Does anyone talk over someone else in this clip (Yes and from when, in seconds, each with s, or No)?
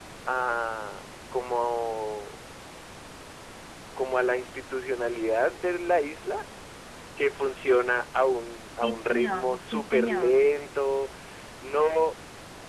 Yes, from 8.8 s